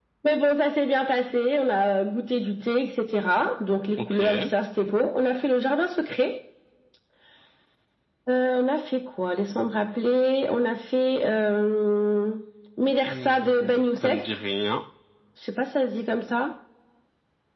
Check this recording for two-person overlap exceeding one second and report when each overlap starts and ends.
13.1-14.3

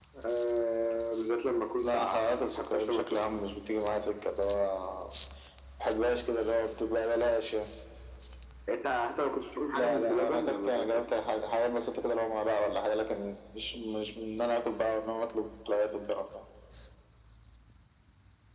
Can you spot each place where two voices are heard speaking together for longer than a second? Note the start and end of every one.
1.8-3.3, 9.7-11.0

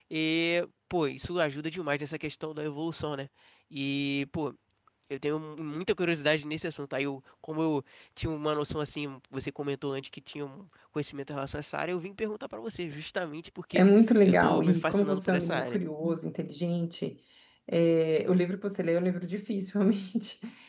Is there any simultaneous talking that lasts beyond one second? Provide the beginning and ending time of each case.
14.2-15.8

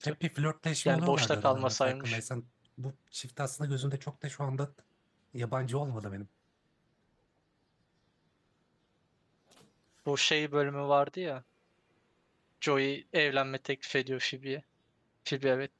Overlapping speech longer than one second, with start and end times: 0.8-2.2

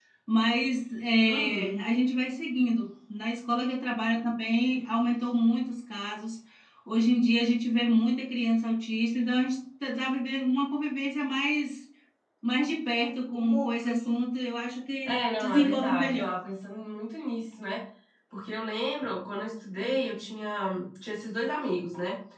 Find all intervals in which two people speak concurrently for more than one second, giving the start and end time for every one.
15.1-16.4

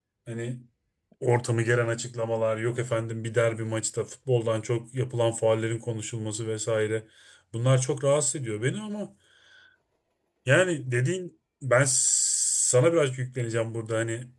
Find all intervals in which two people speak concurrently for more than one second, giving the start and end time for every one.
none

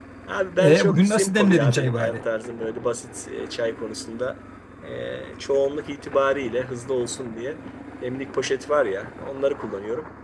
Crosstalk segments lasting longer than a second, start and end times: 0.6-2.2

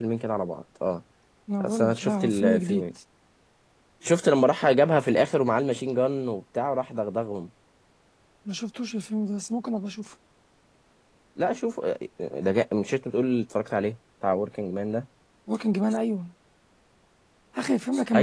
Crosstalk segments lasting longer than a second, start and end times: 1.6-2.8

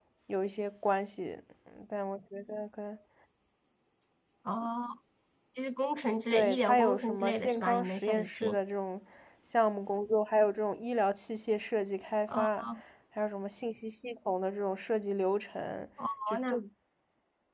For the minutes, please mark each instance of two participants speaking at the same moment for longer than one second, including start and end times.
6.3-8.6

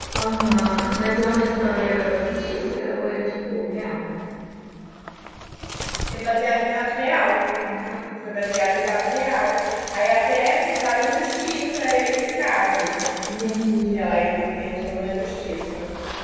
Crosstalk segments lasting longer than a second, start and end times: none

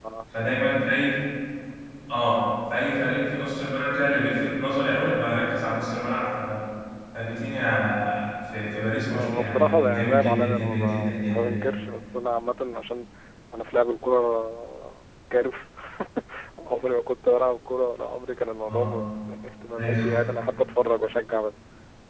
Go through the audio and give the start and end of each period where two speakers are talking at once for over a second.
9.1-11.7

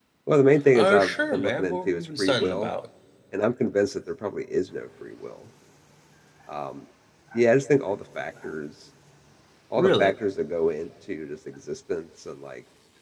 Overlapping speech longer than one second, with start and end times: 0.7-2.7

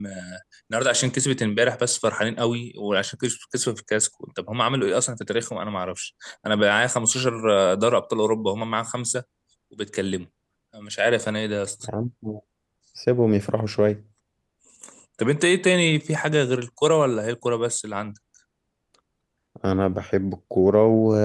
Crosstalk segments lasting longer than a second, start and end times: none

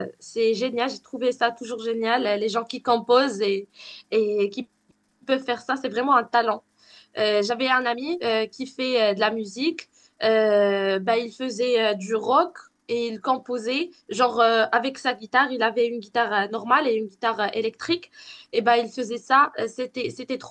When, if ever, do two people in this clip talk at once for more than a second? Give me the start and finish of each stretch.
none

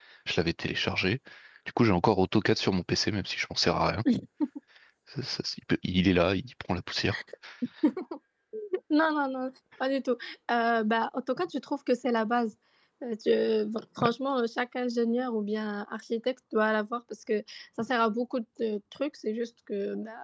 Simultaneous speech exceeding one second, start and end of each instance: none

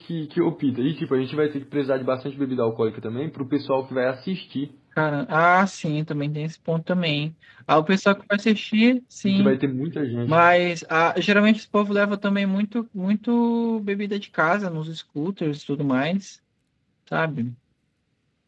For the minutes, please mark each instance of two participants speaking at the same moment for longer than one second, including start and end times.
none

